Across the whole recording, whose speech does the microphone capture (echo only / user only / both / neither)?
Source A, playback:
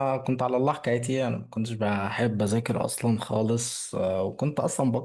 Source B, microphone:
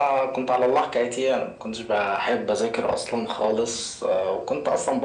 echo only